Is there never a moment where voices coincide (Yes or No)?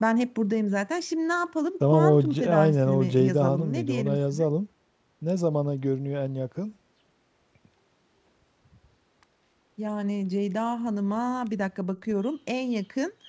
No